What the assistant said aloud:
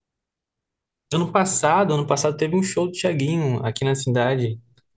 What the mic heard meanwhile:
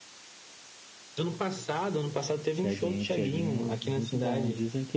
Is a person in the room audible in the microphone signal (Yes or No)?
Yes